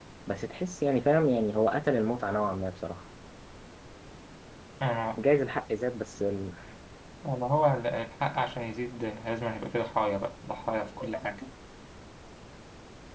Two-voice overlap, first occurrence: none

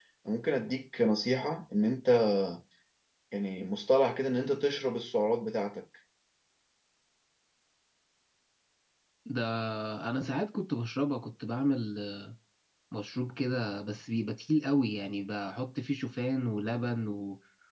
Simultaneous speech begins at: none

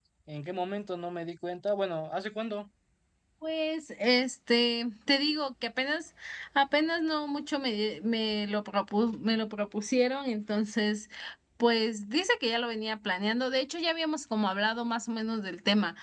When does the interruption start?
none

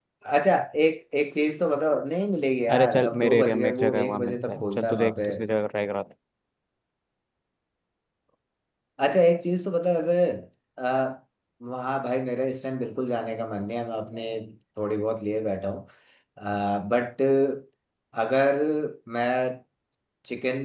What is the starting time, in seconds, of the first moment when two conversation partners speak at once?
2.7 s

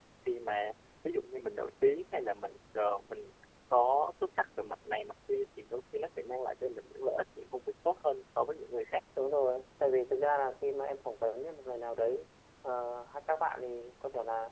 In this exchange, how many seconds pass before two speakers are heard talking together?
none

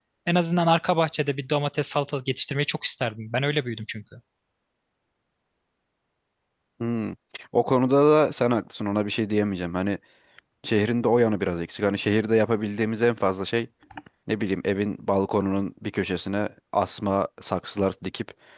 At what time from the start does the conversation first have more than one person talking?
none

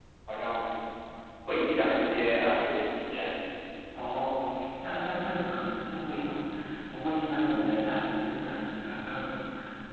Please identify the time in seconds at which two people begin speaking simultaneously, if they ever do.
none

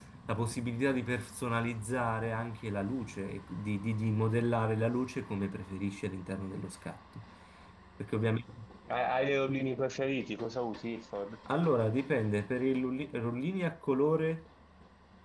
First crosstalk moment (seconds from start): none

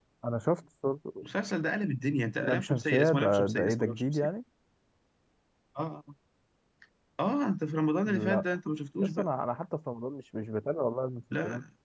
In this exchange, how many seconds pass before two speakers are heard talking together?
2.4 s

